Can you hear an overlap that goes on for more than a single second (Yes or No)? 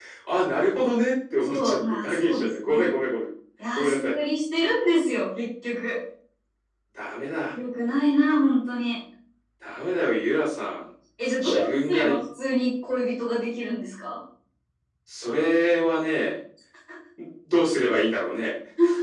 Yes